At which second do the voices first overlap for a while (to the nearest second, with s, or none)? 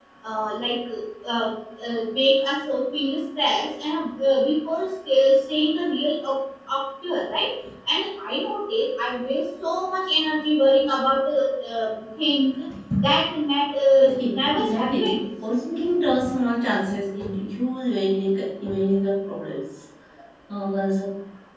14 s